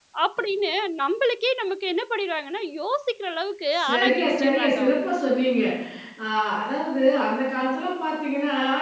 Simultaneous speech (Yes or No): Yes